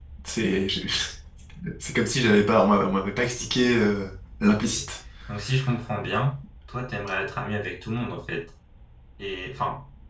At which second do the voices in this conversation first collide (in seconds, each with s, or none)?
none